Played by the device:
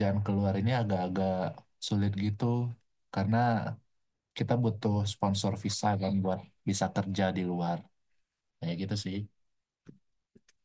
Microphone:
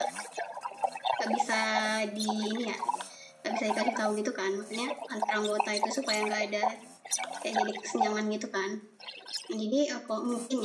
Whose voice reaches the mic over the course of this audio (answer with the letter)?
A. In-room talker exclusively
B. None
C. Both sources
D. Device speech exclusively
C